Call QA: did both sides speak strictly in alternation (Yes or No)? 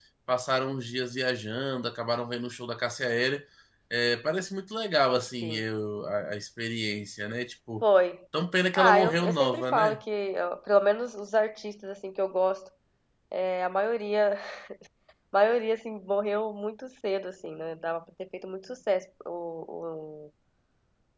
No